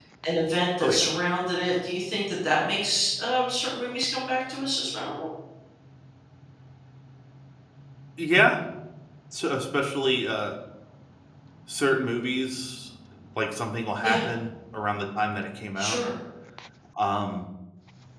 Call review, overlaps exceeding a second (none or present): none